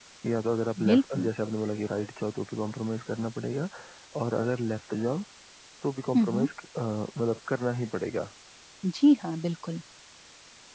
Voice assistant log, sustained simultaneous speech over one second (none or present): none